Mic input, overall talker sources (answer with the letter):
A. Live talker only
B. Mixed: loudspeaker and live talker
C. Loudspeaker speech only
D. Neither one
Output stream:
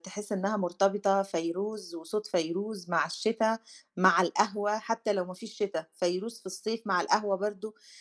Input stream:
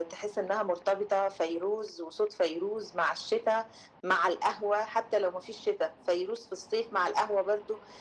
C